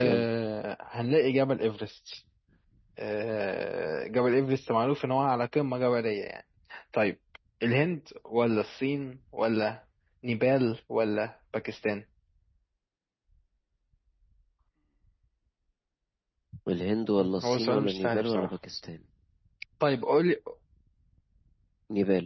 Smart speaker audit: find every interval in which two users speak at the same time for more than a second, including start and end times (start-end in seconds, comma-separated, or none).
17.2-18.5